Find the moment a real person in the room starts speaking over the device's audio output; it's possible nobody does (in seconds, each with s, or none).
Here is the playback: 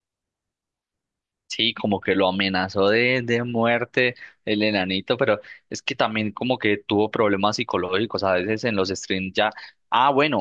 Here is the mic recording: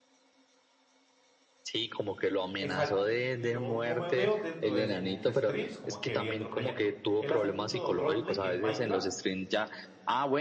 2.6 s